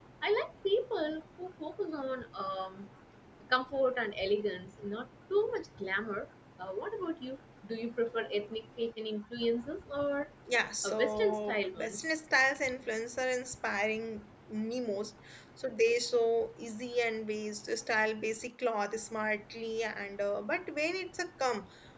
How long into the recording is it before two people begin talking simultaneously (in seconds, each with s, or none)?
10.8 s